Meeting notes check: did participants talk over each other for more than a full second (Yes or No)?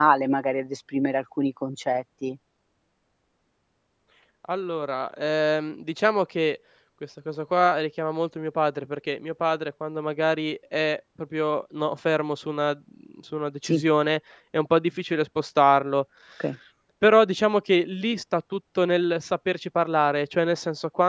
No